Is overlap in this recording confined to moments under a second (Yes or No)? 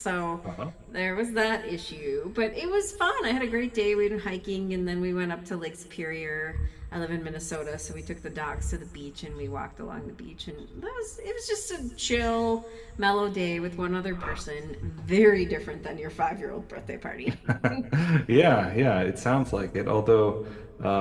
Yes